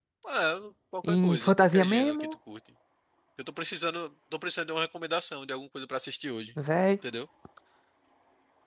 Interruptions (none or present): present